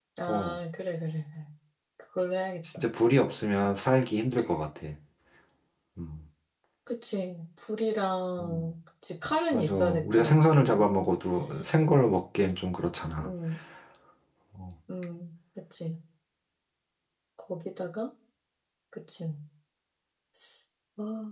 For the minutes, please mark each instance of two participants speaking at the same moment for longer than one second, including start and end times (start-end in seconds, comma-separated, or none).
9.5-10.8